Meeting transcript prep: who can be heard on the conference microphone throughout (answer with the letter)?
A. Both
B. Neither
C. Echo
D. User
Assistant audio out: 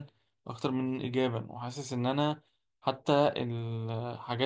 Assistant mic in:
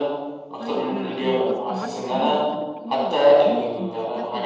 A